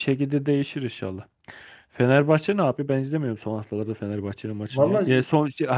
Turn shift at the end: No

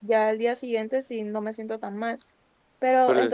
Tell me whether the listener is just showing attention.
Yes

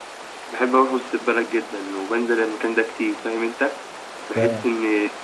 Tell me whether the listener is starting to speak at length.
No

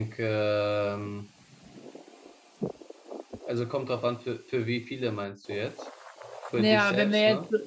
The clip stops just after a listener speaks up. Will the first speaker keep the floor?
No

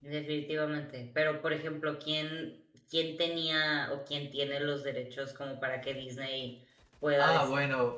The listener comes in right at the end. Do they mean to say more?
Yes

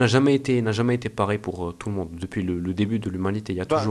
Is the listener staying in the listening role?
No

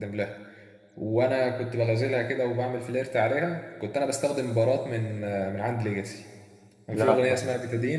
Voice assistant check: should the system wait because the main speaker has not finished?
Yes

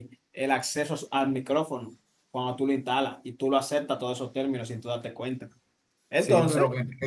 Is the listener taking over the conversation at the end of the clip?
Yes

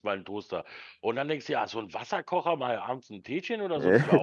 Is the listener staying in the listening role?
Yes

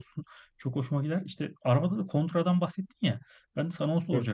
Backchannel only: Yes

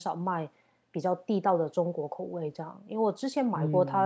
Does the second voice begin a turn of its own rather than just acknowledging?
No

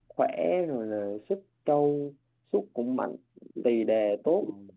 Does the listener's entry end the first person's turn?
No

